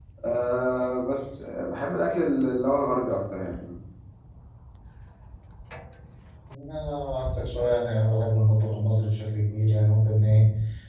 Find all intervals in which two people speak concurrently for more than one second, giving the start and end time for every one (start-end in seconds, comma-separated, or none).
none